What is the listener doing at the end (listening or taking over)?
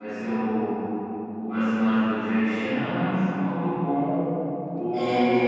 taking over